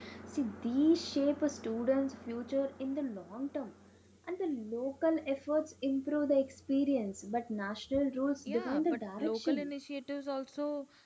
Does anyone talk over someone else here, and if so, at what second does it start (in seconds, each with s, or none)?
8.4 s